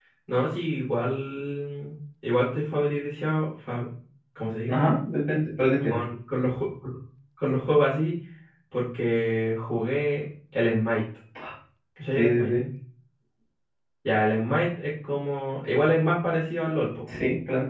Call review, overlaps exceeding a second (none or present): none